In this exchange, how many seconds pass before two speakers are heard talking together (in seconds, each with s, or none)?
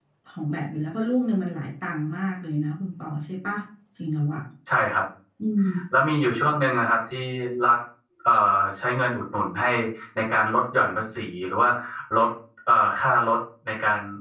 none